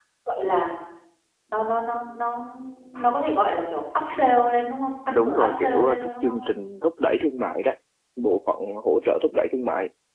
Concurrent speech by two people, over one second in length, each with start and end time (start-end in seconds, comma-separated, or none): 5.1-6.4